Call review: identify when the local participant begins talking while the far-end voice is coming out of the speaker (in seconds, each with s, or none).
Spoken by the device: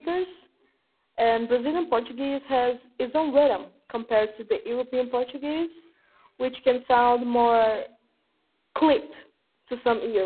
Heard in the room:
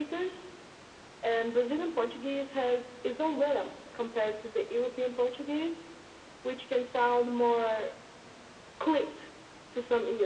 none